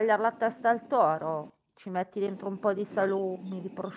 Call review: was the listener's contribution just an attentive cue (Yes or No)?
Yes